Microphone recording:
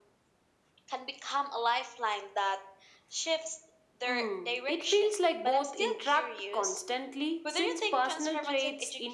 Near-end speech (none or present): none